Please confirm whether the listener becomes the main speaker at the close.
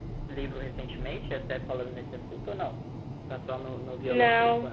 Yes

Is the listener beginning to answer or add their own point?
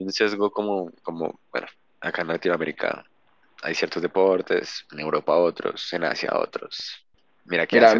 Yes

